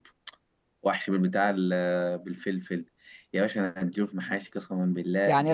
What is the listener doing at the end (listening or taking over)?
taking over